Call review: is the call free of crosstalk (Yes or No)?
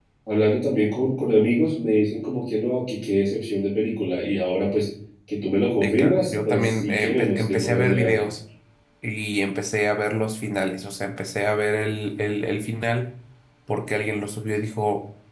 No